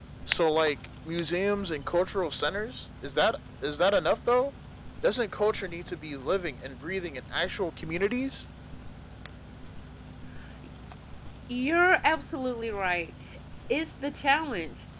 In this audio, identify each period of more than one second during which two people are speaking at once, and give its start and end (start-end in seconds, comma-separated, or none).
none